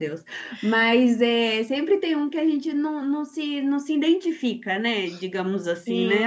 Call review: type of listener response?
taking over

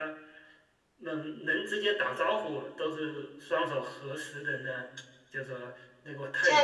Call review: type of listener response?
taking over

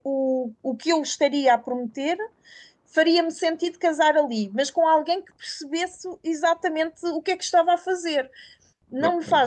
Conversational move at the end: listening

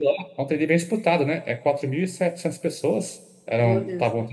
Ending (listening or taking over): listening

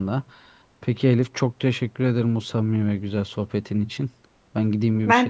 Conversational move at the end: listening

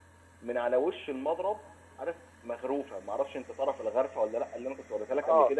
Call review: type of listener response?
listening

